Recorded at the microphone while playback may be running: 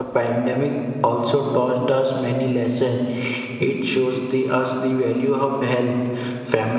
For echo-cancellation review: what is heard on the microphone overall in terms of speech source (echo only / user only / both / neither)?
user only